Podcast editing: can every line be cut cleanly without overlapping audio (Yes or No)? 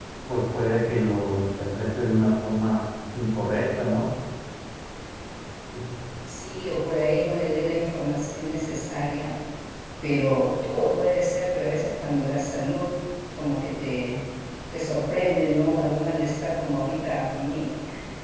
Yes